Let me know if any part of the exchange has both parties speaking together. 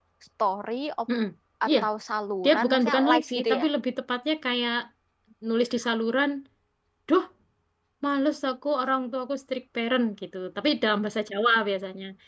Yes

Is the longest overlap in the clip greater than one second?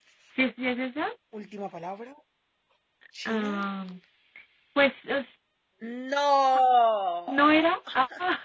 No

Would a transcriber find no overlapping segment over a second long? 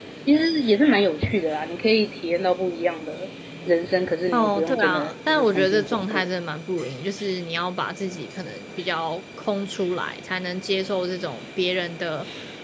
No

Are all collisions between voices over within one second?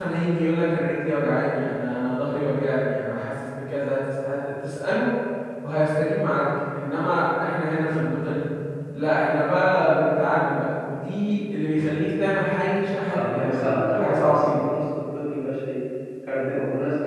No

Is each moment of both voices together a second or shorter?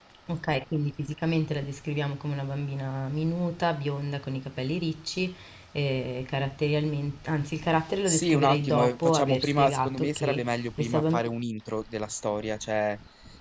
No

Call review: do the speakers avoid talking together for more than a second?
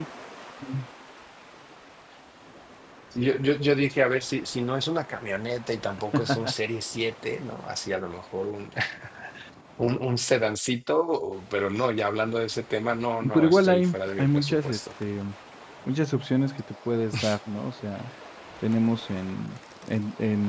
No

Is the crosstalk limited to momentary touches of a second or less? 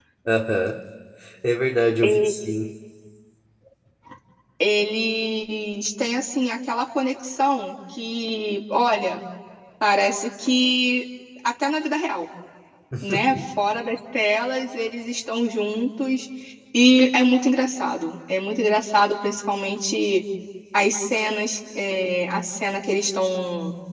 Yes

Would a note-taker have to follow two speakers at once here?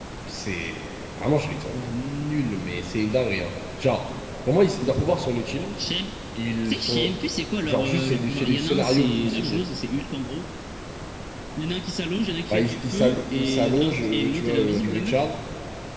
Yes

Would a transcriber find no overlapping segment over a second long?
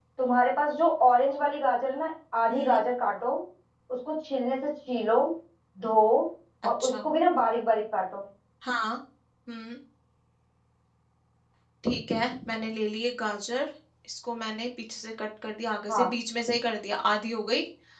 Yes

